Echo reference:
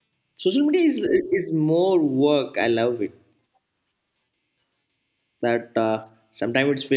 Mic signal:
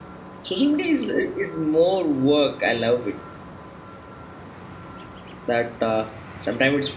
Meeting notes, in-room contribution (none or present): none